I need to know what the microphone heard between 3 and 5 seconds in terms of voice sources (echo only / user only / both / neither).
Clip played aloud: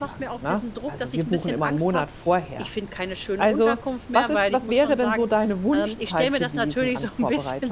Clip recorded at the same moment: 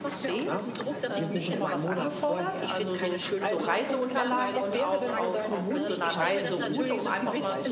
both